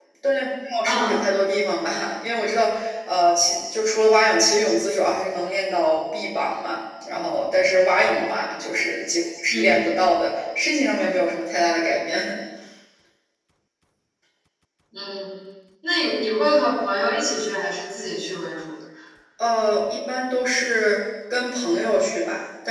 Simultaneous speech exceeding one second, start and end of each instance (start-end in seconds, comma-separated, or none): none